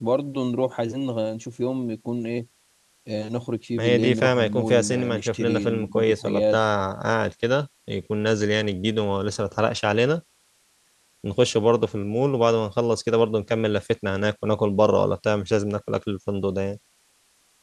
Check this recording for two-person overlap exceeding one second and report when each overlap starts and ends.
3.8-6.6

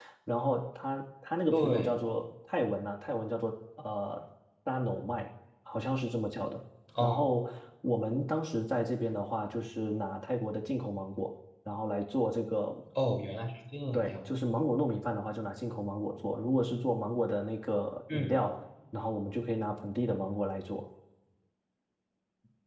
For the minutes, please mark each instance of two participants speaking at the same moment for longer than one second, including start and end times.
none

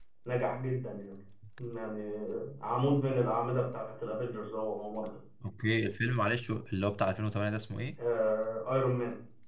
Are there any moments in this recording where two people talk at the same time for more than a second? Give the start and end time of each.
none

